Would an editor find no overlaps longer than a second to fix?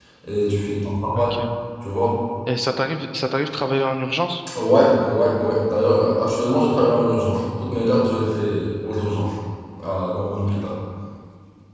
Yes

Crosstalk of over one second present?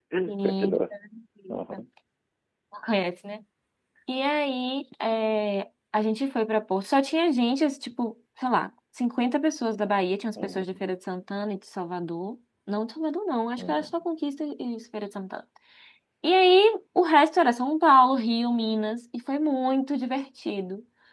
No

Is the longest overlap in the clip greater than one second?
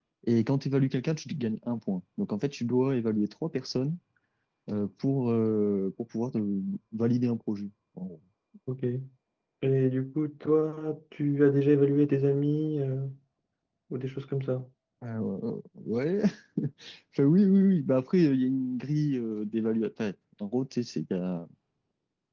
No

